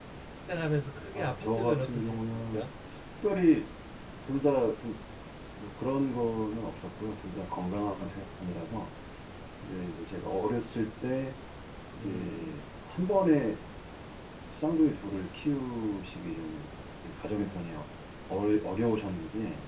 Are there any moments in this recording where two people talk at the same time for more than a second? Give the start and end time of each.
1.1-2.6

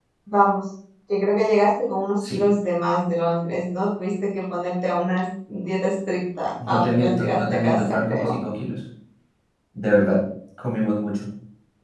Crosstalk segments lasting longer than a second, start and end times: 6.7-8.4

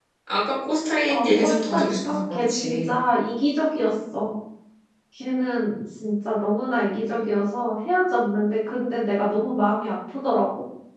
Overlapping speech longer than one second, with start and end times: 1.1-2.9

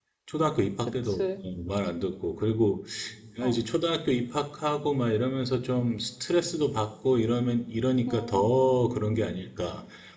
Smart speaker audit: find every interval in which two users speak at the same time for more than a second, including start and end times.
8.1-9.3

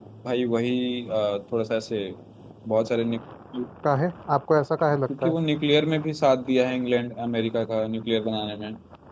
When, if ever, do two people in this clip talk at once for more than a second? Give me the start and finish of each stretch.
none

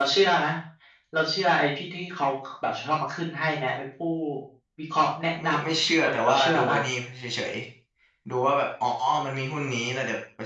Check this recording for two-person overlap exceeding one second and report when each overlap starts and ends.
5.4-6.8

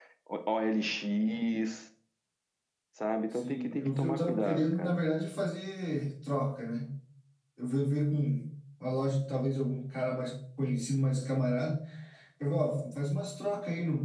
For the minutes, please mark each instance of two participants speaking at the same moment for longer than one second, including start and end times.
3.3-5.0

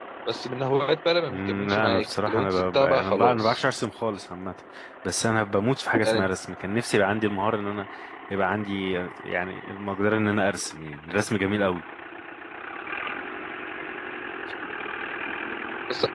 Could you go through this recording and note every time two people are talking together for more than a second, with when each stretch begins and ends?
1.3-3.6

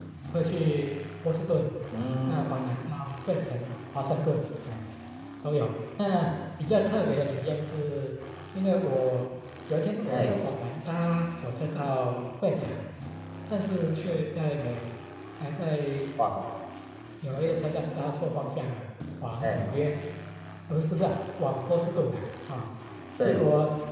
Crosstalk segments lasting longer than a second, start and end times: none

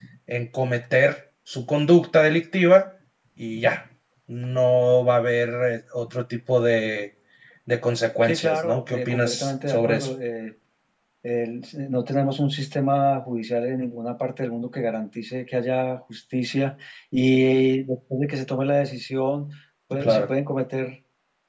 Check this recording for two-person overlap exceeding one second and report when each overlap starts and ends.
8.2-10.1

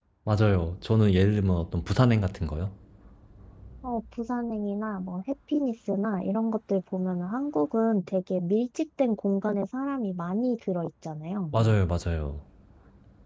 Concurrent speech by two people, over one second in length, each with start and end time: none

